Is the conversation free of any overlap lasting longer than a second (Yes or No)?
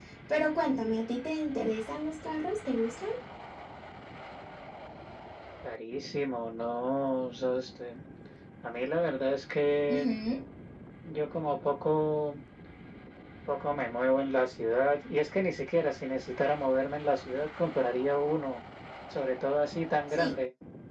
Yes